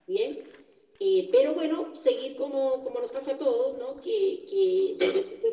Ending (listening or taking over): listening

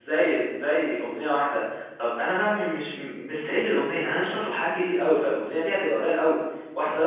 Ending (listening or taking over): listening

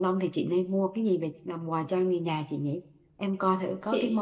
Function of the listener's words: listening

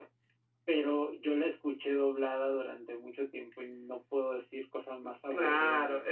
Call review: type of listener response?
taking over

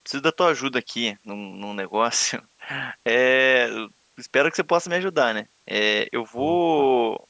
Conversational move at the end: listening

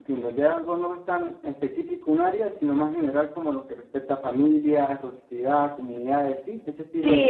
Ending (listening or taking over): taking over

